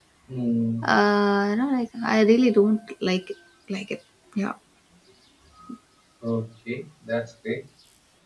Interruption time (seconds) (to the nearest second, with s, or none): none